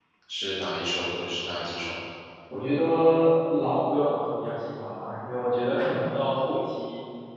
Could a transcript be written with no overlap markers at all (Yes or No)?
Yes